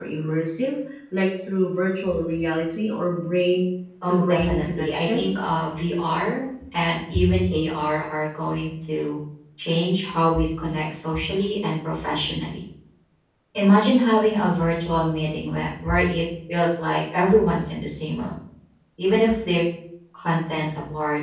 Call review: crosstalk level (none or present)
present